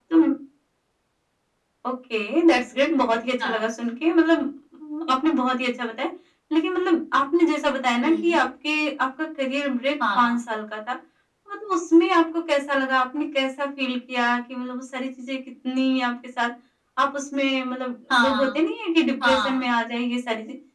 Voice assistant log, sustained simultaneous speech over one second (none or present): none